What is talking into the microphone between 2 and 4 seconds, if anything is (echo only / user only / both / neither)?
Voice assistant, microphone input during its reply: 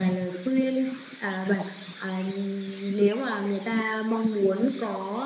echo only